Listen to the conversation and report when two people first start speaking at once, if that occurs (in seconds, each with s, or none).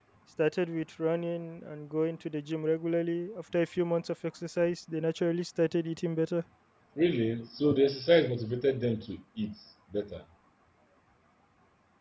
none